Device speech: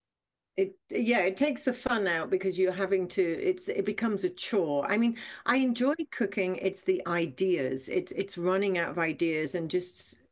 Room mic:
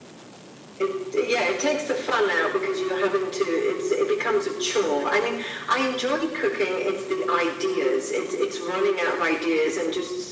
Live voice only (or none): none